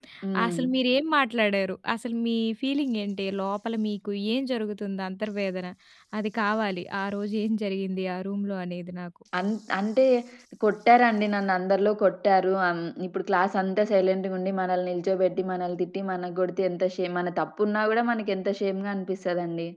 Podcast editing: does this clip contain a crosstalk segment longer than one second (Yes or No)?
No